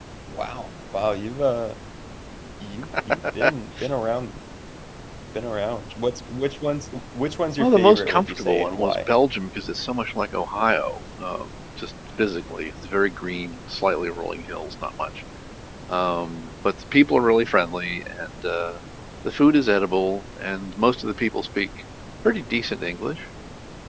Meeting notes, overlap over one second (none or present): present